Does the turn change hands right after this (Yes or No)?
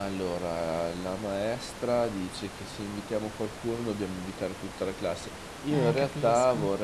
No